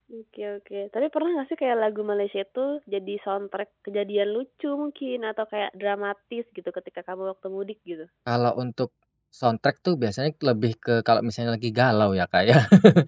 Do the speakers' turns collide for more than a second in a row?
No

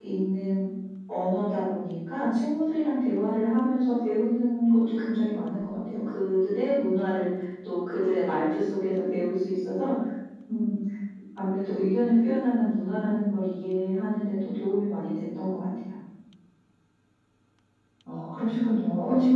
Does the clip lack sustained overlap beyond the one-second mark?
Yes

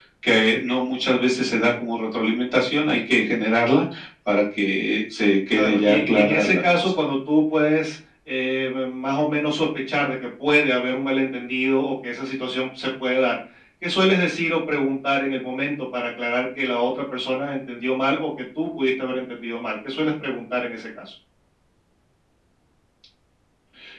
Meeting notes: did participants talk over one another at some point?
Yes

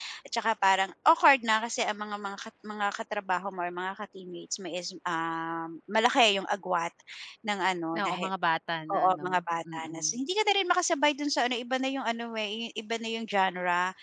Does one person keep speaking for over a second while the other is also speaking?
No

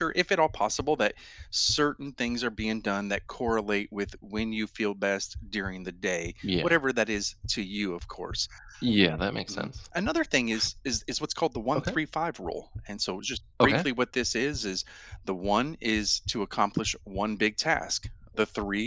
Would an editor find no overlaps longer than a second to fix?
Yes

